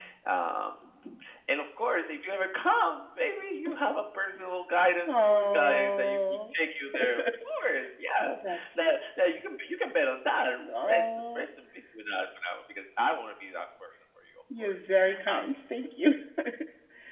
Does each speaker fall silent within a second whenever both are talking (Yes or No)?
No